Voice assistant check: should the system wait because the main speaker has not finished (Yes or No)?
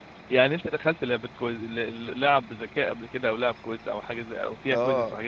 No